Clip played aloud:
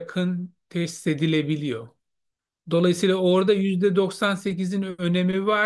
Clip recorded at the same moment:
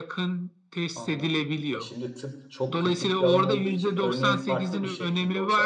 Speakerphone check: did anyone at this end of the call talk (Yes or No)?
Yes